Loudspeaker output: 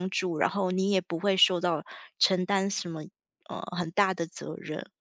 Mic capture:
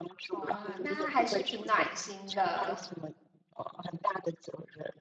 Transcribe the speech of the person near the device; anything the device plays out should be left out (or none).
哇，那还是挺暖心的。